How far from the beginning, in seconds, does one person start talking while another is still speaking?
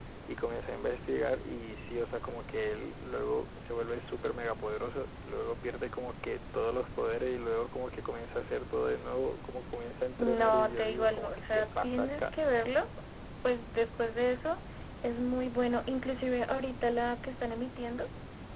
10 s

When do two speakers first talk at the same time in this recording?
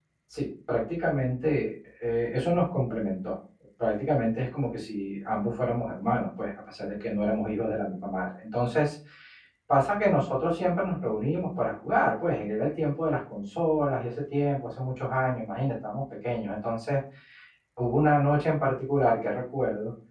none

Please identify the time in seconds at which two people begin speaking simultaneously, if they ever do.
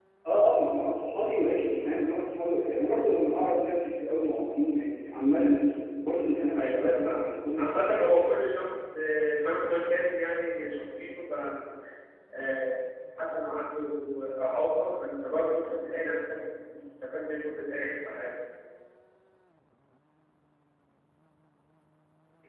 7 s

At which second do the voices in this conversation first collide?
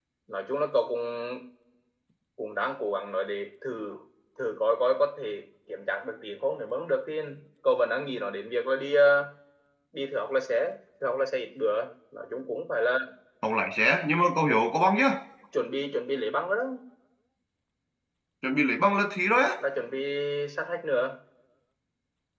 none

